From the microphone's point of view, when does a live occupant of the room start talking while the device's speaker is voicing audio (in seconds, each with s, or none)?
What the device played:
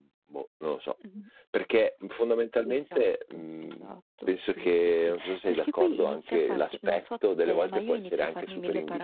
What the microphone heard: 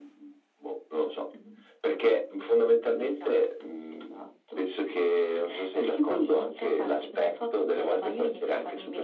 none